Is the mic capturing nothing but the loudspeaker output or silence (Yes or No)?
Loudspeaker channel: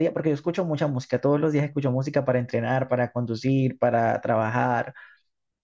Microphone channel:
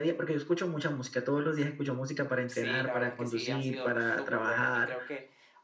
No